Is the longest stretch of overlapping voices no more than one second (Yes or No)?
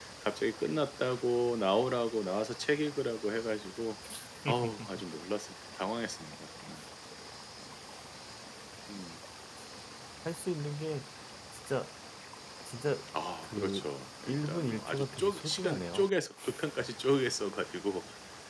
No